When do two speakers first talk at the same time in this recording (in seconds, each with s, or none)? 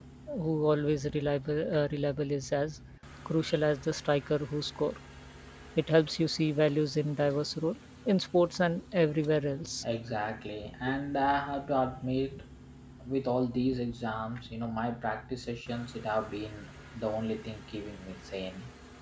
none